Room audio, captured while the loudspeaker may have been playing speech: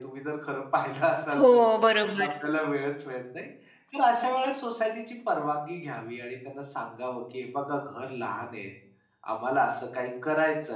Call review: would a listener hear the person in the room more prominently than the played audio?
Yes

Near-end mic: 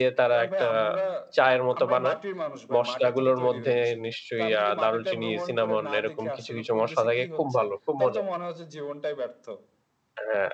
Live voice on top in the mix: Yes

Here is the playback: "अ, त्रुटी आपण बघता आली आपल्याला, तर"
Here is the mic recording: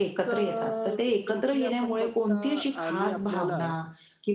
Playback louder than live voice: No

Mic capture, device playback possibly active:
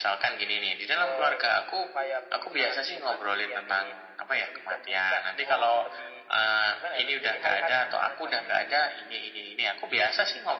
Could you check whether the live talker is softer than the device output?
Yes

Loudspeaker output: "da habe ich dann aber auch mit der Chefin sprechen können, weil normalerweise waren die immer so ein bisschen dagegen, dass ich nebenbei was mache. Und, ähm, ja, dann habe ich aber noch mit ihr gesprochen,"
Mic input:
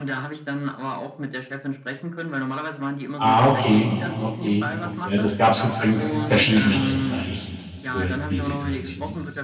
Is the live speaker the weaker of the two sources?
No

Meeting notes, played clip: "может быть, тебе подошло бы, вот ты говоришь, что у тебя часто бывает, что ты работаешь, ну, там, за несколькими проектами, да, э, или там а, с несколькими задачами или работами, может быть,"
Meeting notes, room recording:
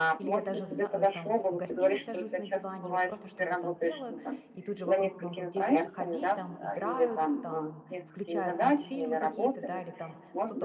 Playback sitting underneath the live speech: No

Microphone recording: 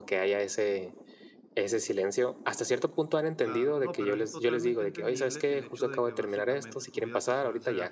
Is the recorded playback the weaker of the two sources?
No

